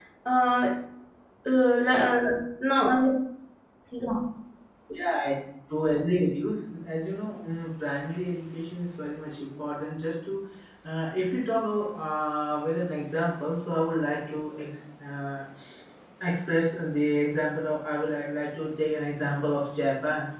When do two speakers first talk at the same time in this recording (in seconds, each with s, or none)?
none